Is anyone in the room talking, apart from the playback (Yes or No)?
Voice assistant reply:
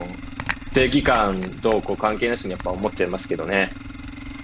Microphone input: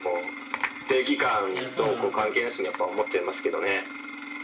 Yes